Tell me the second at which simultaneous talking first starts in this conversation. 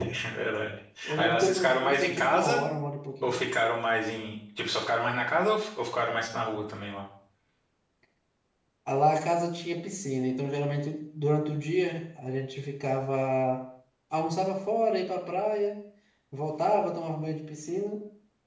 1 s

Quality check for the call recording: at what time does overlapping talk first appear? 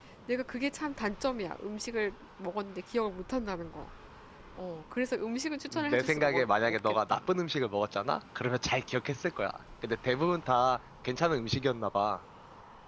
6 s

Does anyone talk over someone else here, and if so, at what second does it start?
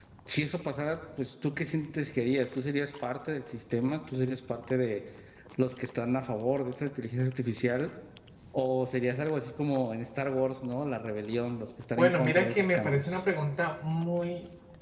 12 s

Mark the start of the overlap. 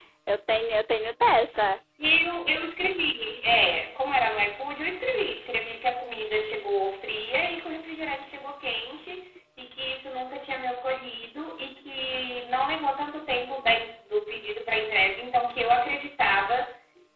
none

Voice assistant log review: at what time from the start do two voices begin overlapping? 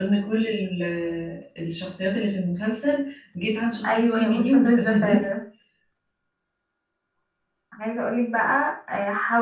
4 s

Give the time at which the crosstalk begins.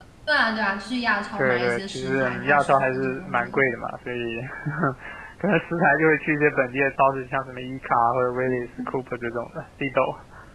1 s

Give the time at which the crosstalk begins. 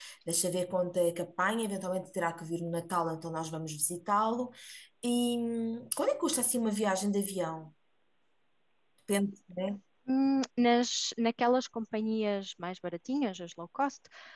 none

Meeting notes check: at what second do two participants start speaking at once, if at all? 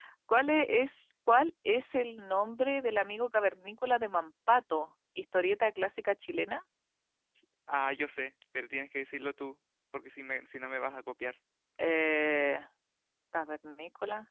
none

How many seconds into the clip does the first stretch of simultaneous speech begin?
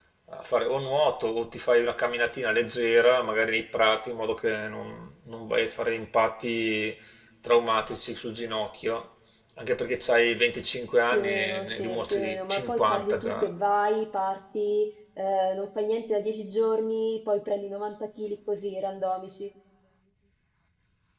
11 s

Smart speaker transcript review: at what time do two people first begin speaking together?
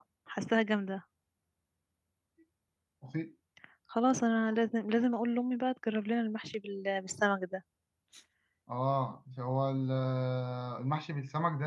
none

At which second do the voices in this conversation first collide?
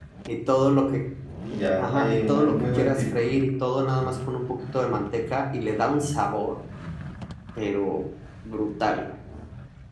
2 s

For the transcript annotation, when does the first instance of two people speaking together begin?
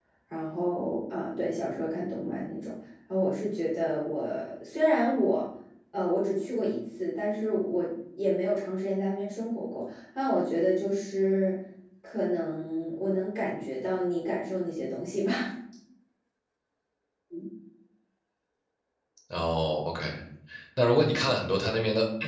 none

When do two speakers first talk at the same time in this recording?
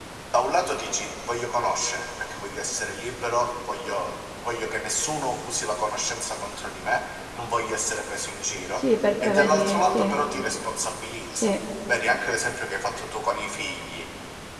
9 s

